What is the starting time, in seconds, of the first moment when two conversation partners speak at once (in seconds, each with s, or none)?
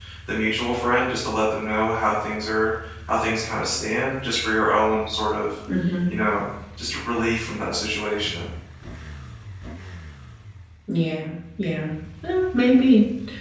none